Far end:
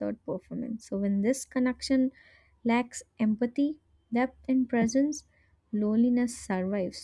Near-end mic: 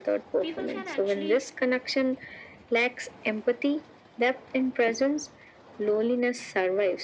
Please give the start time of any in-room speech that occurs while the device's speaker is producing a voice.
0 s

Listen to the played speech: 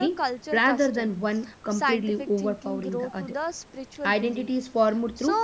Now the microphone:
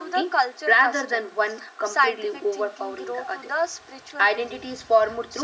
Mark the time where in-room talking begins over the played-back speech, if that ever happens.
none

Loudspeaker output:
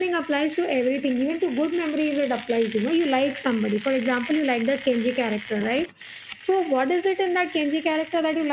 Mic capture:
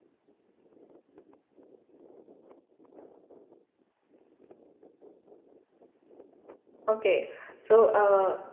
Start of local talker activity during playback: 7 s

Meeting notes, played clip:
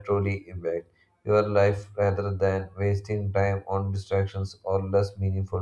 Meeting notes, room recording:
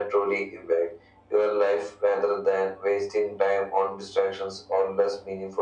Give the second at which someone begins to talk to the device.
none

